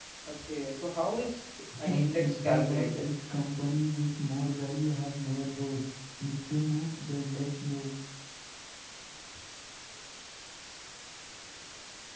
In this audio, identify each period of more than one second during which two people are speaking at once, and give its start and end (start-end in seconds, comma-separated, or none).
1.8-3.0